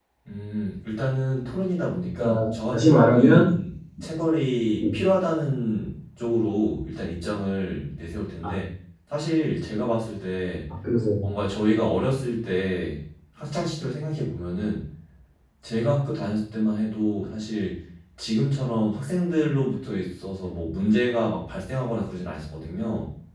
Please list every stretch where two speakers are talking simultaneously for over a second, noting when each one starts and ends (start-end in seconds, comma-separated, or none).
2.2-3.5